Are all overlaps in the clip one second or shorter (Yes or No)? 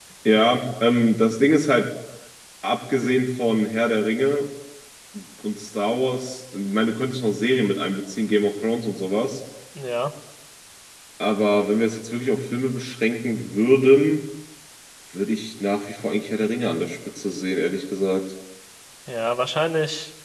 Yes